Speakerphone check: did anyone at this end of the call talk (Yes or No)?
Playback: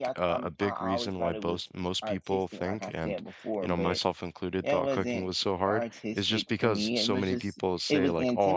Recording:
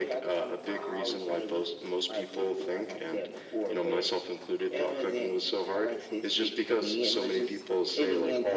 No